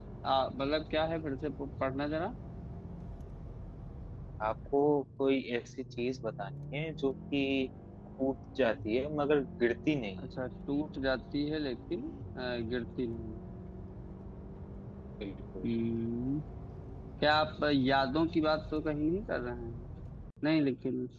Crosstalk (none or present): none